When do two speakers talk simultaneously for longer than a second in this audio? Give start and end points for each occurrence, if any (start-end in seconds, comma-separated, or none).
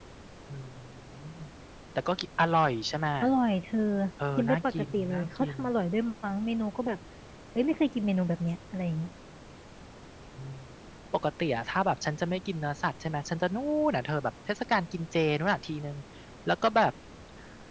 4.4-5.6